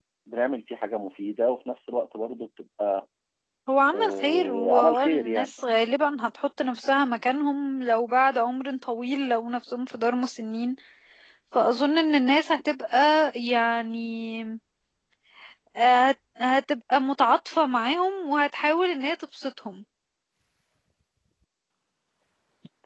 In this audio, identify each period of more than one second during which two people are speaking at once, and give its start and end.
3.9-5.5

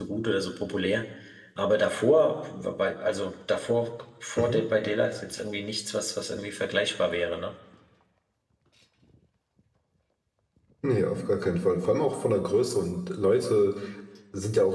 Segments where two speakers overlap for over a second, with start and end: none

